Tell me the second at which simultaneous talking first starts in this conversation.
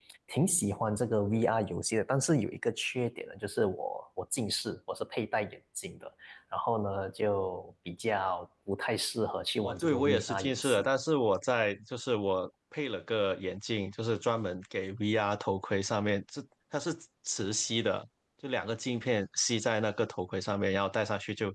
10 s

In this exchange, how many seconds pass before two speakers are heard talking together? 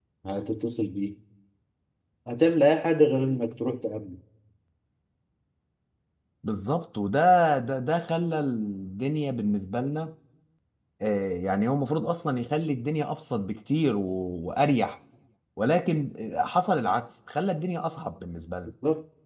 none

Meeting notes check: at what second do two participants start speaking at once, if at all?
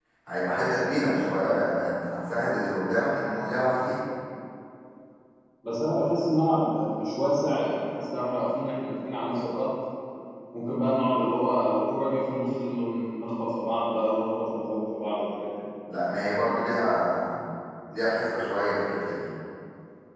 none

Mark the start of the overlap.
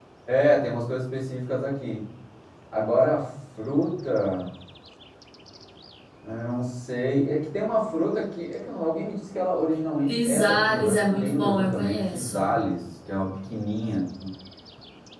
10 s

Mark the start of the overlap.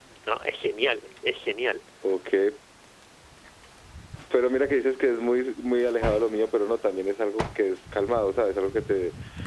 none

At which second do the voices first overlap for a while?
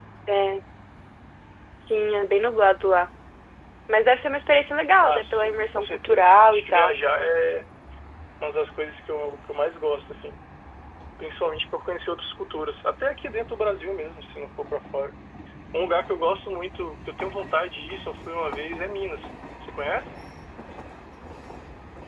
5 s

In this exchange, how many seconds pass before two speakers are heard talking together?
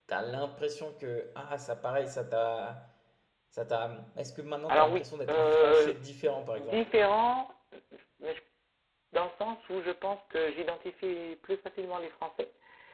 5 s

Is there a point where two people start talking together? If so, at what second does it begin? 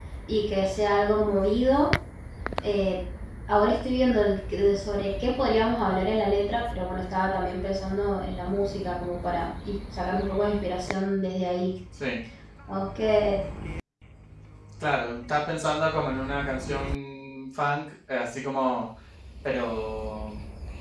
none

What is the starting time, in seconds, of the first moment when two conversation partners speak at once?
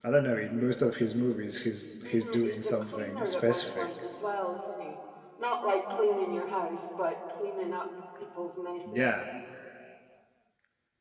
2 s

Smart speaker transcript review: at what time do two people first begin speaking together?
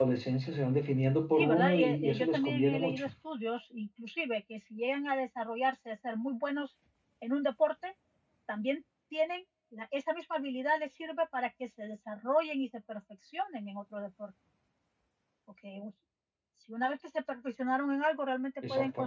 1 s

